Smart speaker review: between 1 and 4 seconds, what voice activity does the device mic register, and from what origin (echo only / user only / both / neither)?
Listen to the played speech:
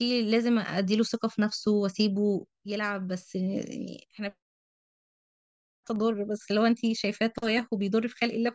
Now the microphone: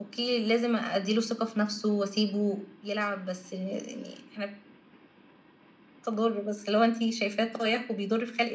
echo only